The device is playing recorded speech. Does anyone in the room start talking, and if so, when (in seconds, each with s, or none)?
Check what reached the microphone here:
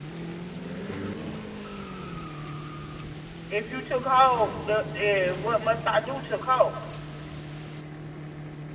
3.5 s